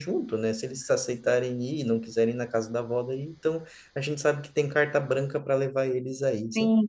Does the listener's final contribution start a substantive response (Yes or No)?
Yes